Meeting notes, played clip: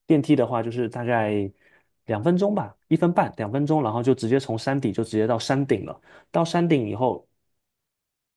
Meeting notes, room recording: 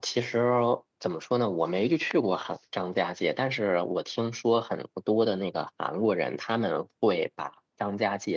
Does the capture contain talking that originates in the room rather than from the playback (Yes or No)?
Yes